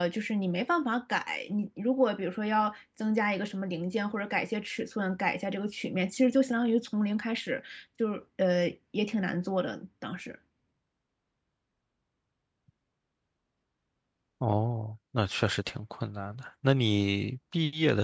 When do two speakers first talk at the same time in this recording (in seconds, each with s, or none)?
none